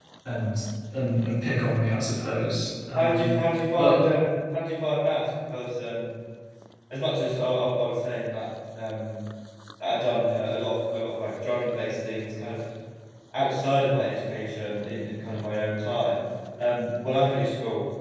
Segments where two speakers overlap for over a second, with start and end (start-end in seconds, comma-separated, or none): none